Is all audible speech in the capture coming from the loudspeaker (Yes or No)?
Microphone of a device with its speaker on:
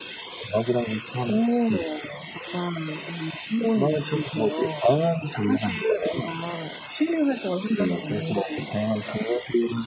Yes